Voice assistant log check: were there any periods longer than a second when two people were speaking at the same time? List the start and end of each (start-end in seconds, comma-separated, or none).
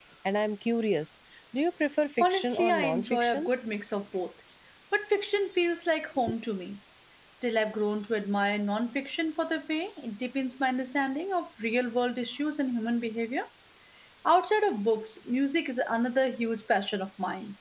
2.2-3.5